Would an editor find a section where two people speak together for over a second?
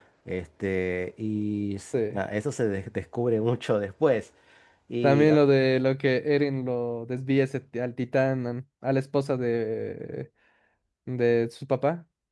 No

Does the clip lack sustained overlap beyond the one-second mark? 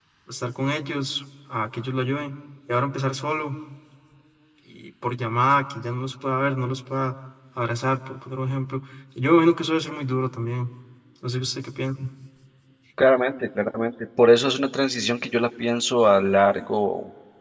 Yes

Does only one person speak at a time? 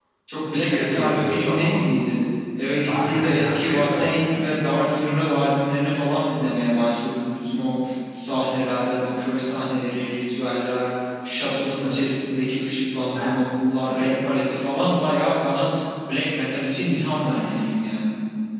No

